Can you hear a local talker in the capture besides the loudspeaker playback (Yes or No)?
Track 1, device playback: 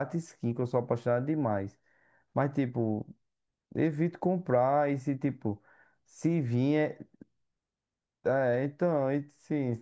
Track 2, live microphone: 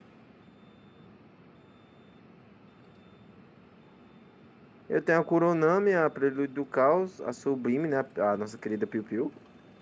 Yes